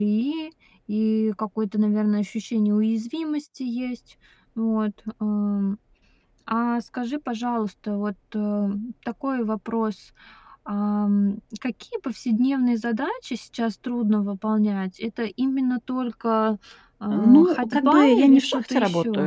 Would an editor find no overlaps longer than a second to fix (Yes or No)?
No